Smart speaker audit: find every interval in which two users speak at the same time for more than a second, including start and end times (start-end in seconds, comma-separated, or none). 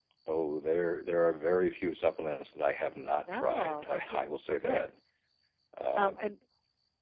3.3-4.9